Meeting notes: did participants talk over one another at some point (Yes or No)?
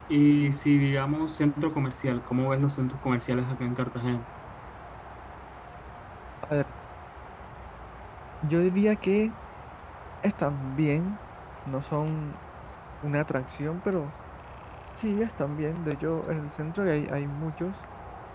No